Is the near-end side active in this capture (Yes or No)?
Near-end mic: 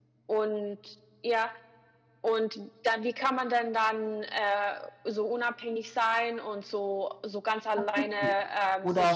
Yes